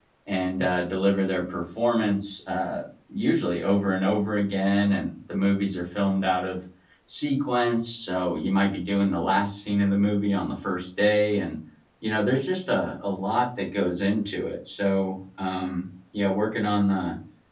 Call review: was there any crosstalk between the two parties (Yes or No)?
No